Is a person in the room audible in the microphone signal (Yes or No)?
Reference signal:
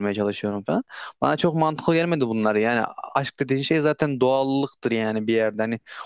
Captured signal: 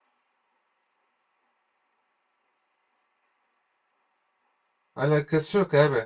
Yes